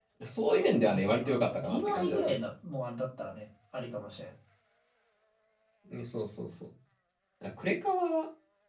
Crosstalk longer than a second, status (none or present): present